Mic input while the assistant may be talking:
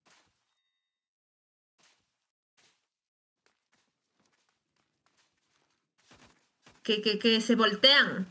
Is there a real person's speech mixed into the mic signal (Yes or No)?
Yes